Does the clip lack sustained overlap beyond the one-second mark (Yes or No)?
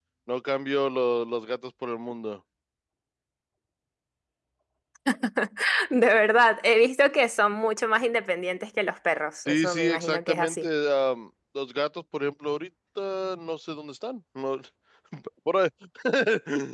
No